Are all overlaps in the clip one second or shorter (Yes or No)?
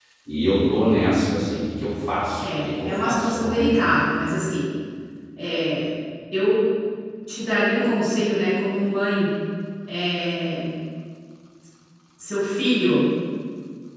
No